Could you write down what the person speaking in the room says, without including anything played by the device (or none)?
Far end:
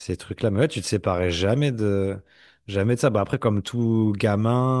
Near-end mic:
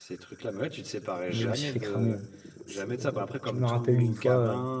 Moi, je me suis fait cramer. hein. C'est- Je me rappelle d'une fois, euh,